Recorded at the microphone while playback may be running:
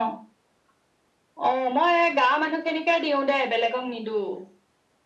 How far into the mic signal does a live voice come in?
none

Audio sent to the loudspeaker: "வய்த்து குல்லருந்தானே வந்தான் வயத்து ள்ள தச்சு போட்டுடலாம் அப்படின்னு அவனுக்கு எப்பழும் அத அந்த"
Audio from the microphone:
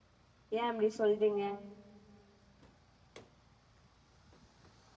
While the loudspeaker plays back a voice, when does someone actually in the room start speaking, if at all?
1 s

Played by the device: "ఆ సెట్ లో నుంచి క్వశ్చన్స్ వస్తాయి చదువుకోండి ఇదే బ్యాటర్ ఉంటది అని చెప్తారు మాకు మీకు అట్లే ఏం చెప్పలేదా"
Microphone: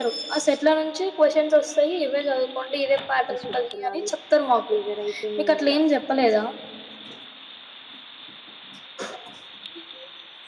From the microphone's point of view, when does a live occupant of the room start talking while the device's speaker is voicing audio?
3 s

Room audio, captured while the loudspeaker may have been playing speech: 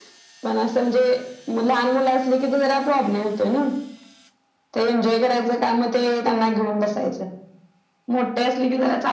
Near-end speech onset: none

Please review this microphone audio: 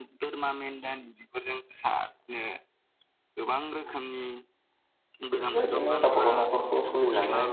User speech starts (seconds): 5 s

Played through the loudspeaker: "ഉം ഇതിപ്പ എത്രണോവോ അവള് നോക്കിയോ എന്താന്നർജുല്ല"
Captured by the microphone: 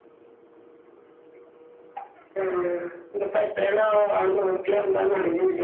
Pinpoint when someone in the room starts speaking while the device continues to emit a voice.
none

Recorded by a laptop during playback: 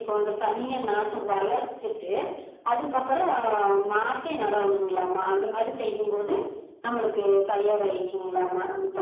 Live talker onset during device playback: none

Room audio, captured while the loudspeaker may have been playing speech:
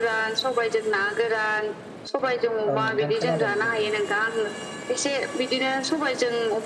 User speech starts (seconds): 3 s

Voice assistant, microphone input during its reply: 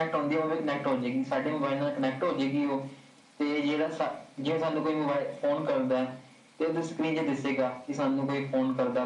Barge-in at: none

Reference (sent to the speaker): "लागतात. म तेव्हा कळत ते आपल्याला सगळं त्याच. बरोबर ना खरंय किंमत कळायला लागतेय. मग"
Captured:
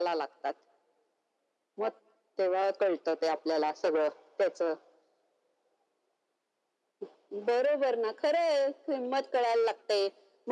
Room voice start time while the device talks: none

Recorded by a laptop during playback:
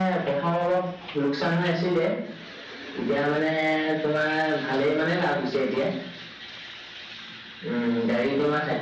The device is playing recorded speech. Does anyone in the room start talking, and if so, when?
none

